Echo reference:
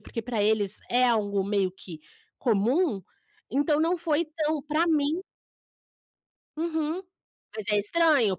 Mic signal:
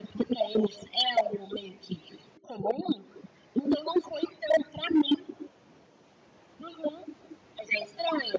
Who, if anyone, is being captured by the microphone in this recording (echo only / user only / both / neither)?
echo only